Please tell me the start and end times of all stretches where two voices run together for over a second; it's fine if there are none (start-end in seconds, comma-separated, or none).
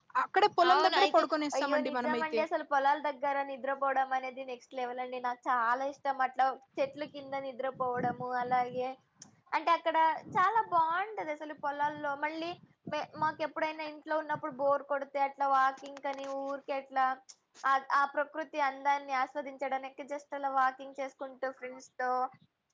0.7-2.4